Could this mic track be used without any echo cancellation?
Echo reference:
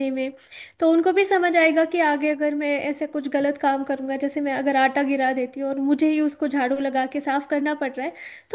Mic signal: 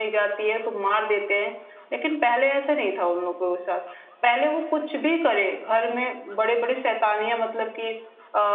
Yes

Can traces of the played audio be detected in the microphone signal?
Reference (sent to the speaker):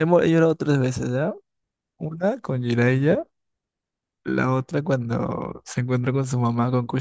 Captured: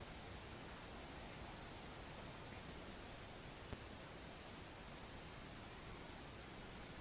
No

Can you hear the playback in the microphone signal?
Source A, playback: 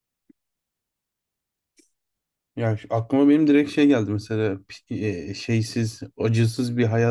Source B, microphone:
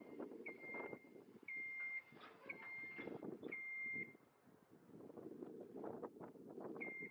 No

